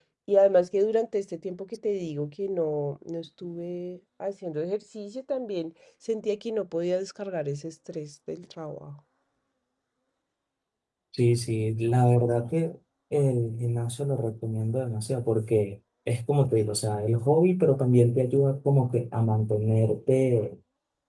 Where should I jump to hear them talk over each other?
none

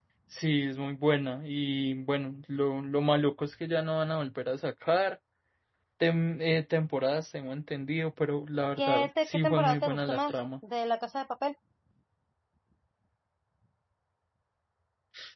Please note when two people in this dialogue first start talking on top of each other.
9 s

